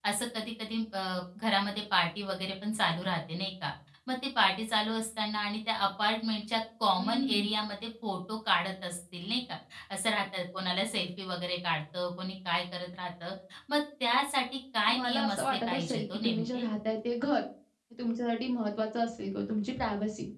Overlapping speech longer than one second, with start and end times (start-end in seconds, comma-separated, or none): 14.9-16.7